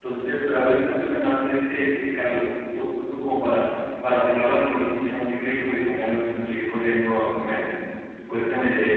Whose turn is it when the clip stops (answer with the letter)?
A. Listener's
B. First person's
A